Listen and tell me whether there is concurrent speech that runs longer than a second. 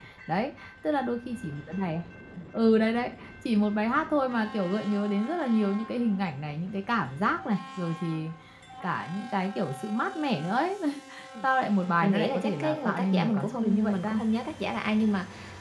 Yes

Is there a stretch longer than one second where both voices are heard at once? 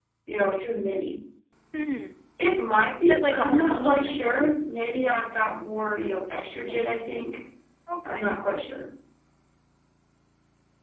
Yes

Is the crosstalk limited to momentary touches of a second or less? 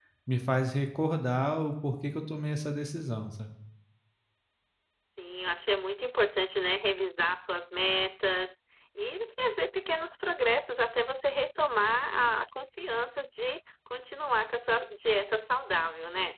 Yes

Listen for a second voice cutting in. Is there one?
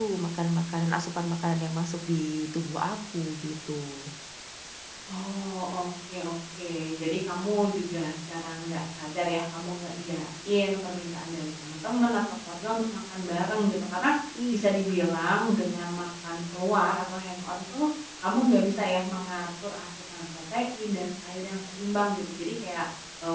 No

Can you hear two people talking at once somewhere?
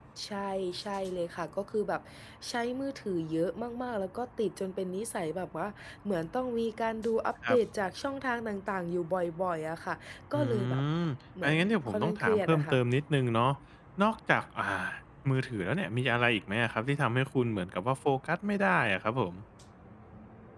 Yes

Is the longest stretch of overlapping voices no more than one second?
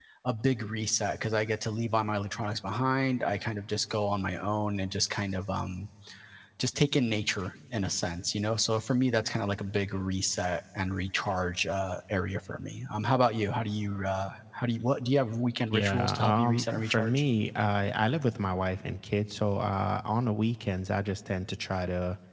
No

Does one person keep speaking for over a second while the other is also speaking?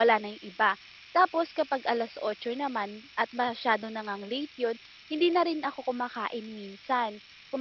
No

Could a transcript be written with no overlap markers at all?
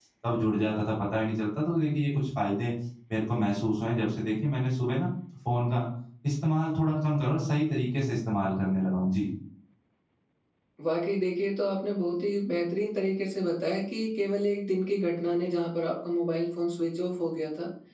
Yes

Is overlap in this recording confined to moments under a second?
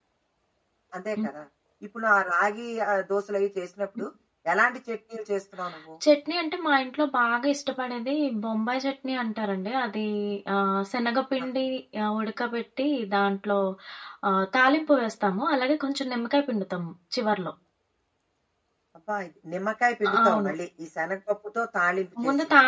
Yes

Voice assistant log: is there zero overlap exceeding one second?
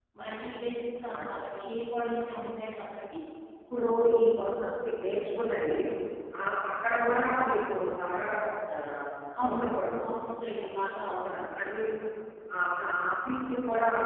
Yes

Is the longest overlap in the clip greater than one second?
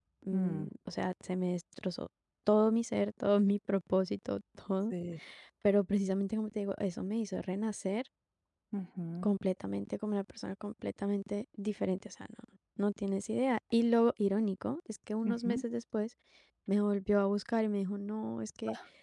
No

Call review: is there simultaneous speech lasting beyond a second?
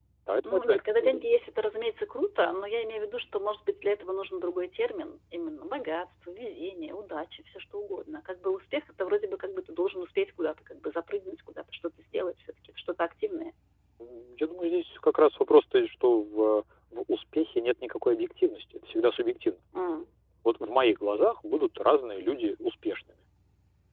No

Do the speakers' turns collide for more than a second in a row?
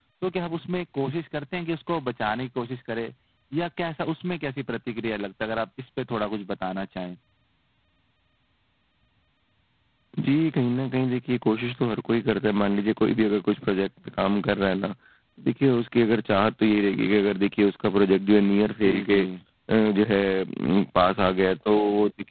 No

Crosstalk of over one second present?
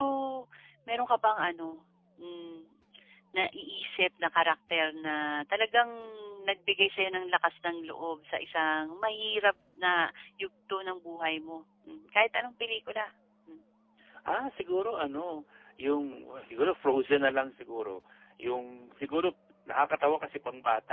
No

